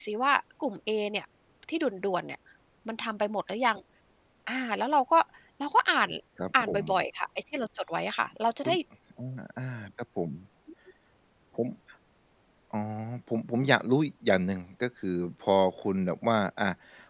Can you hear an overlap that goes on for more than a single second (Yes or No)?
No